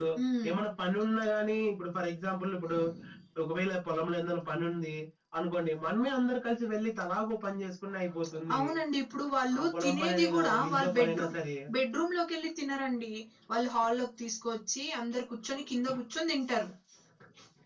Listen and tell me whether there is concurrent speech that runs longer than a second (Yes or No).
Yes